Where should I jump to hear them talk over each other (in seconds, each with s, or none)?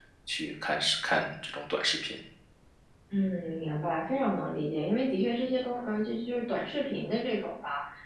none